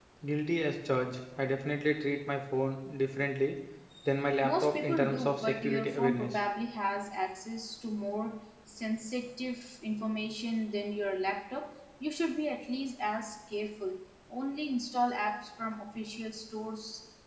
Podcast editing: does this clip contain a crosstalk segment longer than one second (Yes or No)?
Yes